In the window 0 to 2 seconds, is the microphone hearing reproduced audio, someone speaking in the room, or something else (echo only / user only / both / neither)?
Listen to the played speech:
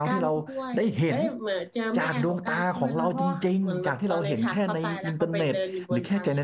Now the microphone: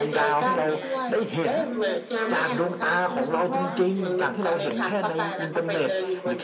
both